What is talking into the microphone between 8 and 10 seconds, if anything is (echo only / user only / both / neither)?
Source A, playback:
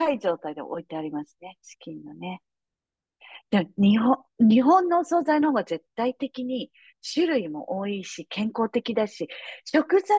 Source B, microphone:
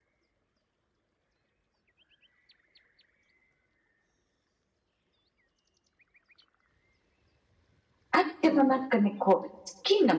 user only